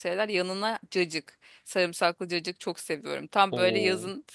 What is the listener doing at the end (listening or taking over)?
listening